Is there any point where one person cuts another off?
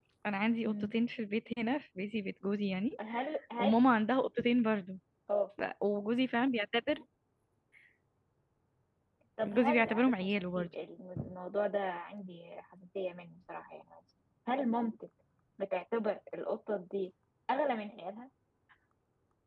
Yes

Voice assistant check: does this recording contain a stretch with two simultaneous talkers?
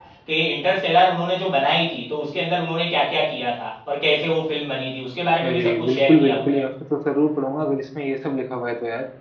Yes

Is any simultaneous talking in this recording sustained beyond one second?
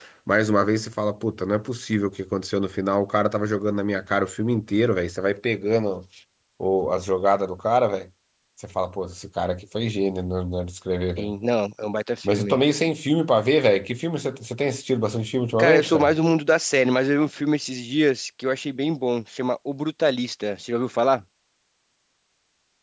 No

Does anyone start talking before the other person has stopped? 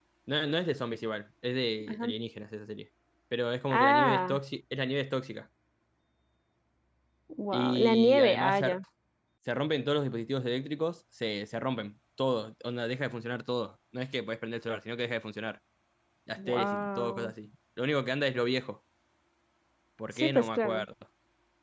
Yes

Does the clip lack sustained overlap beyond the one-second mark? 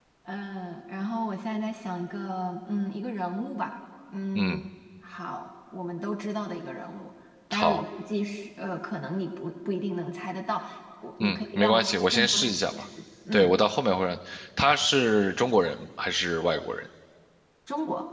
No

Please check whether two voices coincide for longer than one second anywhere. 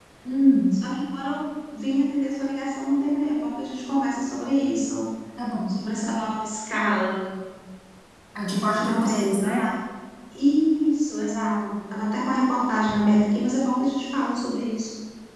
Yes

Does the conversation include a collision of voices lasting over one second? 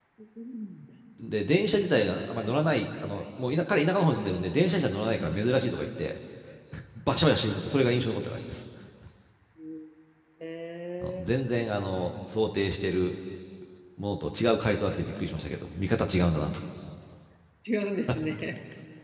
No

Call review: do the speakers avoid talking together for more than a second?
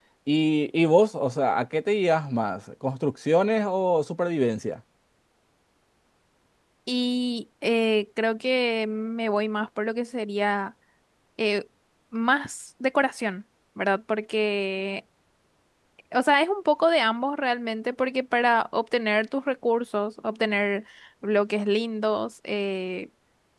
Yes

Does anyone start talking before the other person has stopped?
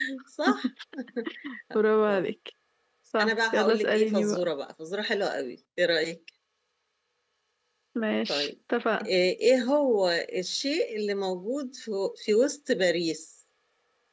Yes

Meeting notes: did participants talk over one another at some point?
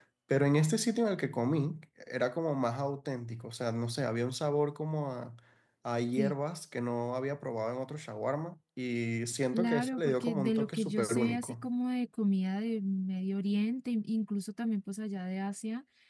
Yes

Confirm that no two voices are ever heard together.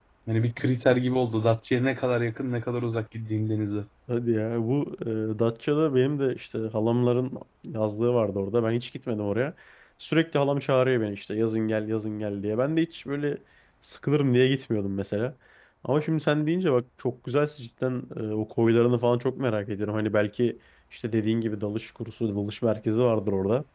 Yes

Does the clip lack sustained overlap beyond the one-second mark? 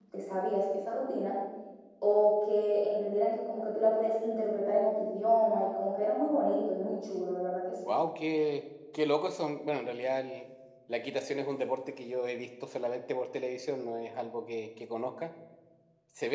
Yes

